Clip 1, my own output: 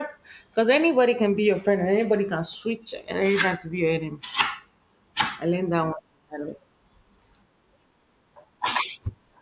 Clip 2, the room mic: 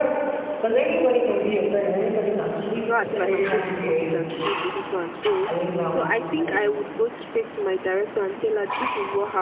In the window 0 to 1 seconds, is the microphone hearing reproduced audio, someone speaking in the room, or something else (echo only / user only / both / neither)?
echo only